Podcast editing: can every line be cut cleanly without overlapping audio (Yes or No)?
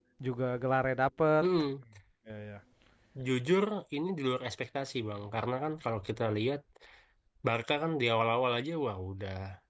Yes